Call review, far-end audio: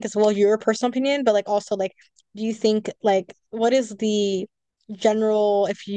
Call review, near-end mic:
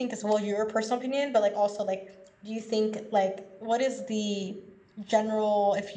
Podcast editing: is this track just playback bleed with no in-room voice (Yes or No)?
Yes